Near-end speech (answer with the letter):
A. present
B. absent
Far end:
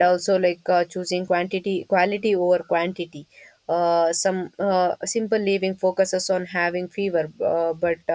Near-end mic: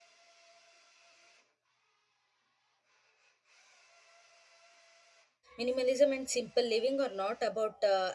A